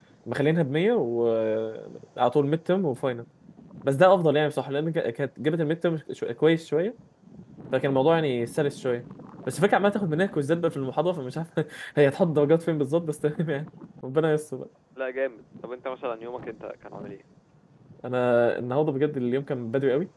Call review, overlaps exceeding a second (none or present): none